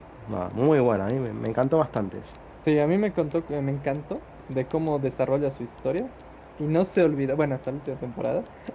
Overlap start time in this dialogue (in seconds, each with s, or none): none